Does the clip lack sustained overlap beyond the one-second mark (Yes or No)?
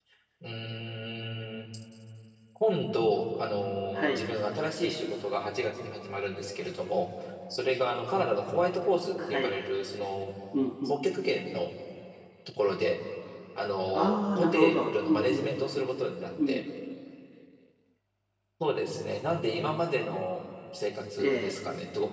No